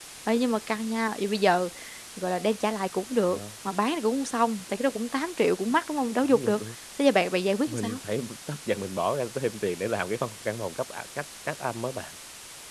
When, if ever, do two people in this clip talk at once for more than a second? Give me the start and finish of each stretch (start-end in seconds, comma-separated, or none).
none